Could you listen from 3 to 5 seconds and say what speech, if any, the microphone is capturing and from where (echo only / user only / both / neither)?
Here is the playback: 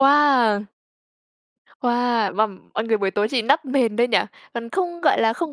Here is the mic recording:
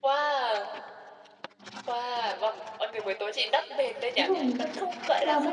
both